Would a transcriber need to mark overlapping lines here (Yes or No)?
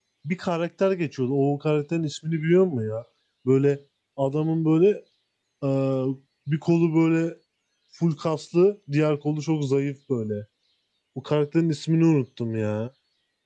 No